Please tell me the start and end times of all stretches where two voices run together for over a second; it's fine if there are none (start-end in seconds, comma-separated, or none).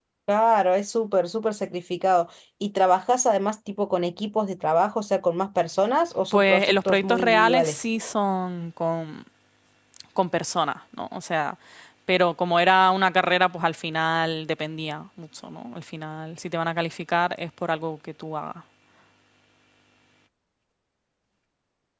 6.3-7.8